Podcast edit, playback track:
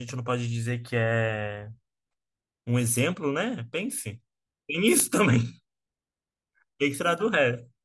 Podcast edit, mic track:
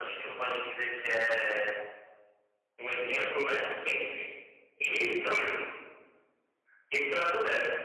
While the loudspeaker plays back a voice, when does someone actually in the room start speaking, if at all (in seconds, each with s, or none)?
none